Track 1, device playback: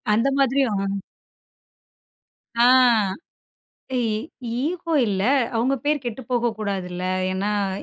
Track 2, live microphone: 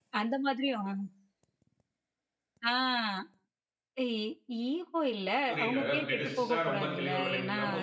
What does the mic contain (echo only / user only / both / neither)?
both